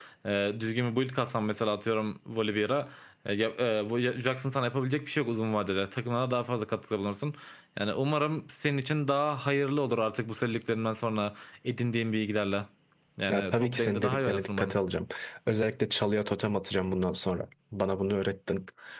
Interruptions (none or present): present